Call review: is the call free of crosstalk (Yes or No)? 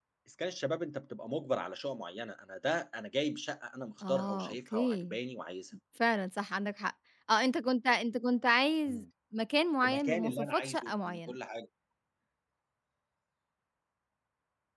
No